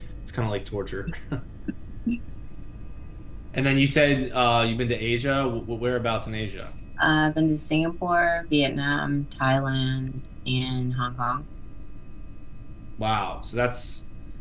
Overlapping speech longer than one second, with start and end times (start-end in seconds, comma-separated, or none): none